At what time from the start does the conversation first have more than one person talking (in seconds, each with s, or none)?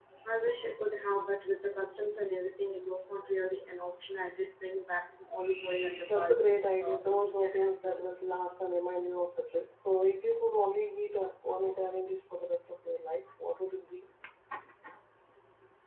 6.1 s